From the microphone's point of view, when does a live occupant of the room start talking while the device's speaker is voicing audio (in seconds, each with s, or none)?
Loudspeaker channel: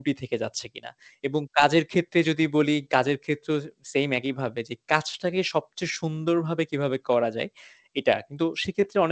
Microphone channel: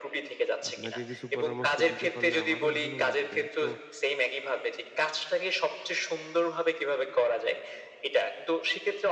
0.7 s